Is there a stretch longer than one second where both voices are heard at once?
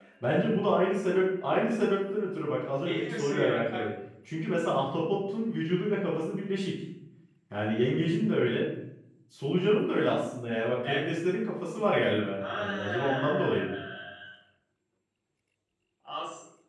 Yes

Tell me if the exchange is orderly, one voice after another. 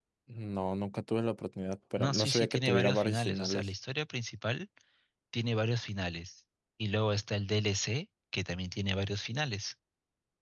No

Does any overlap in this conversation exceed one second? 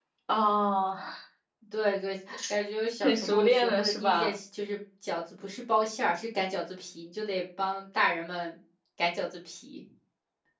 Yes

